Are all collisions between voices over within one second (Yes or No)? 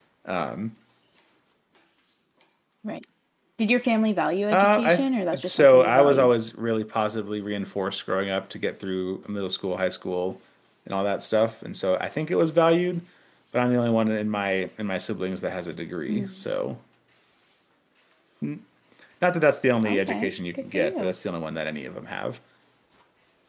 No